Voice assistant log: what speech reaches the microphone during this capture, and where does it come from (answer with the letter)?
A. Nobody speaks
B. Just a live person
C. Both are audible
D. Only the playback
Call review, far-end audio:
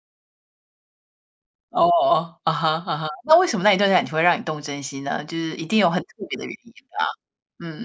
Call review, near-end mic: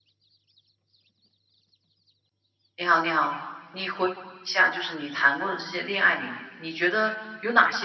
B